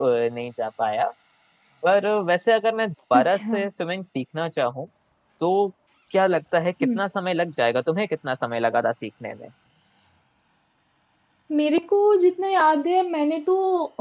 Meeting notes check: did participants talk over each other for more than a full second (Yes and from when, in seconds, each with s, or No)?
No